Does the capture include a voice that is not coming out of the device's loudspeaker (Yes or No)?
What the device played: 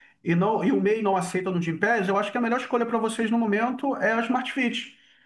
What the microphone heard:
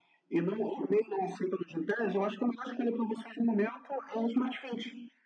No